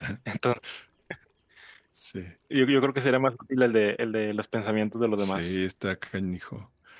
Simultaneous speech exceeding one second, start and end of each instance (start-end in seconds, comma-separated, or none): none